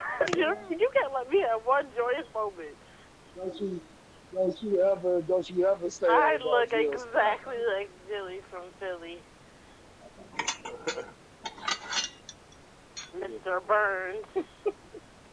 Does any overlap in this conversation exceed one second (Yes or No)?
Yes